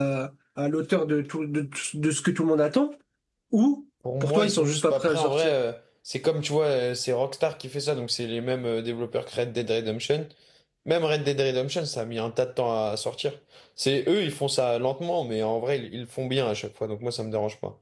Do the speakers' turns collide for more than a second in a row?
Yes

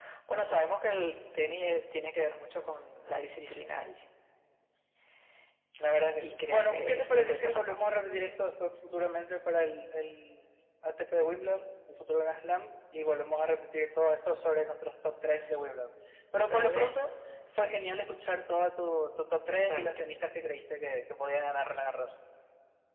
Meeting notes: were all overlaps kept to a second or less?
No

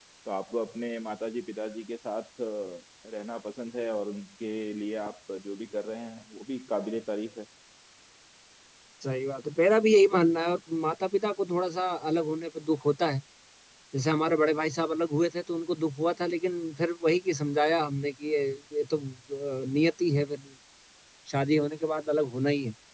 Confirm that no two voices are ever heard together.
Yes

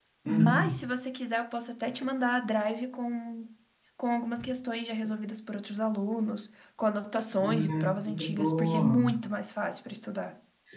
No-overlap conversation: No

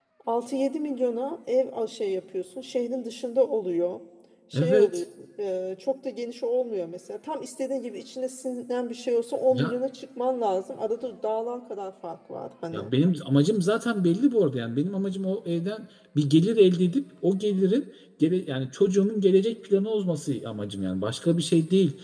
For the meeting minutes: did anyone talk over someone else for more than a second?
No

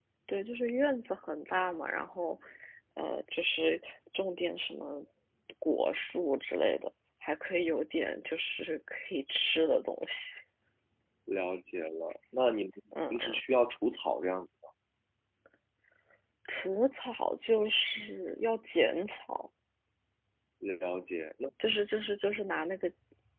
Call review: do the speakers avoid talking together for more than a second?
Yes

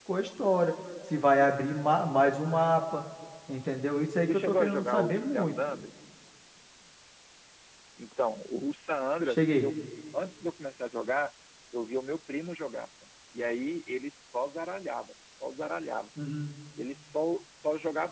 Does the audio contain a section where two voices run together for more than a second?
Yes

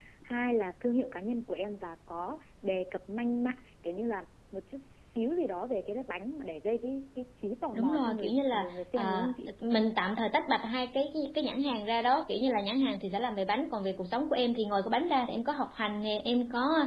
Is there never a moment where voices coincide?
No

